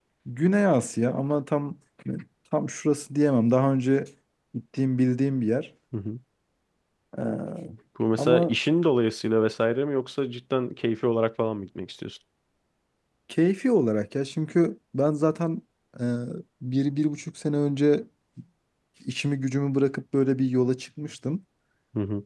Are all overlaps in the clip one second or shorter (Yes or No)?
Yes